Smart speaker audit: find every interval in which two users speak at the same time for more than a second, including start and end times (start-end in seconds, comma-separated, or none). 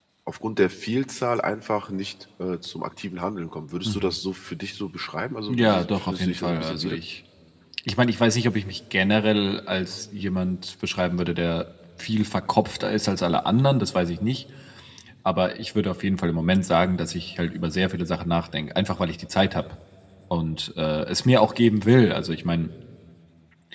5.5-7.0